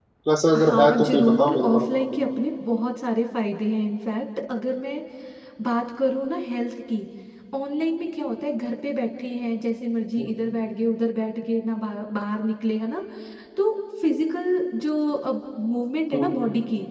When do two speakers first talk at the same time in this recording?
0.6 s

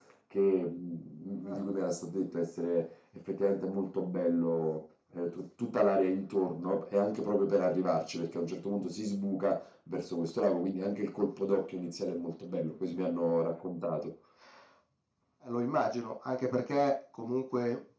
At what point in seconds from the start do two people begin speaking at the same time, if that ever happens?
none

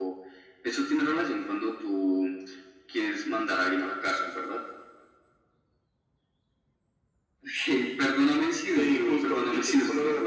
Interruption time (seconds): 8.8 s

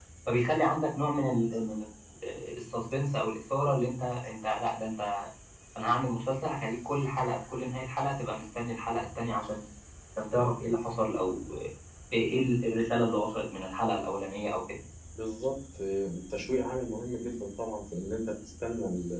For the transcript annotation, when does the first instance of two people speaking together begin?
none

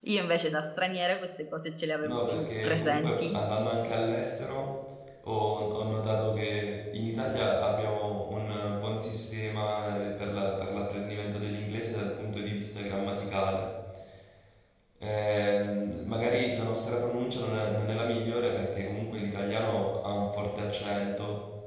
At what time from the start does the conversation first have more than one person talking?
2.0 s

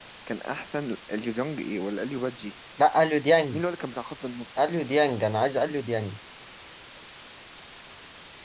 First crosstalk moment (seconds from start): none

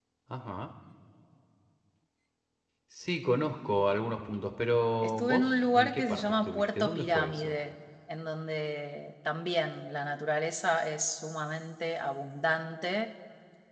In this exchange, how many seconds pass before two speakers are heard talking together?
5.0 s

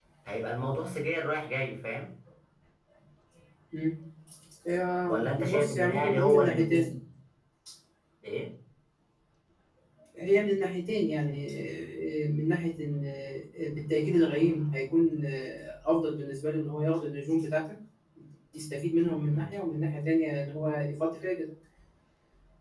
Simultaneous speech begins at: 5.1 s

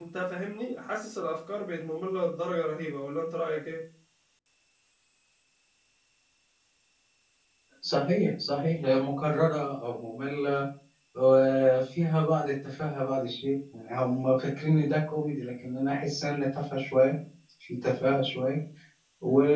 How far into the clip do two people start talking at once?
none

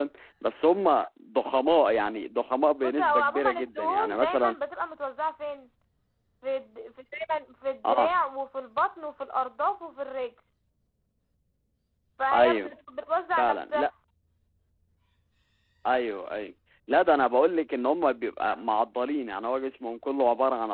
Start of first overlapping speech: 2.8 s

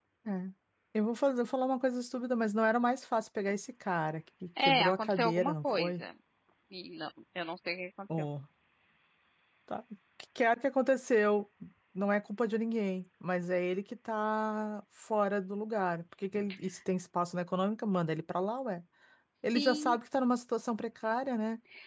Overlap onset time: 4.6 s

